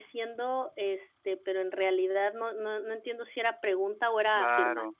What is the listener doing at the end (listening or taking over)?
taking over